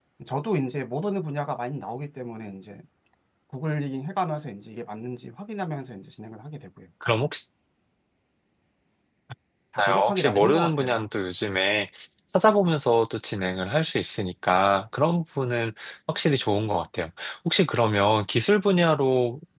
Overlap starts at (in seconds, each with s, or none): 9.8 s